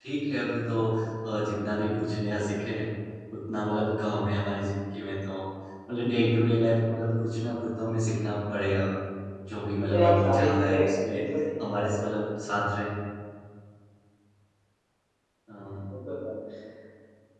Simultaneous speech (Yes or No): Yes